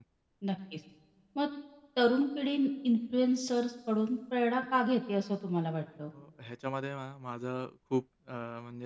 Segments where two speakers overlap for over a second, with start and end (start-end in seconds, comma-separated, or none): none